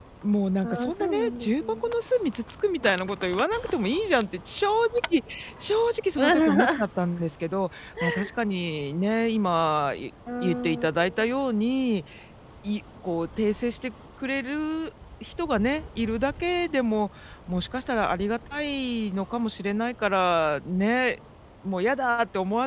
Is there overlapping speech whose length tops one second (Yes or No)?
Yes